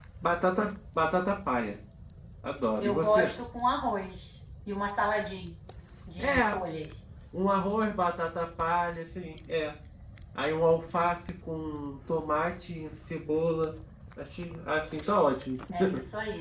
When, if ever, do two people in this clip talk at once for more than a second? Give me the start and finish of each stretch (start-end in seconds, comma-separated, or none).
none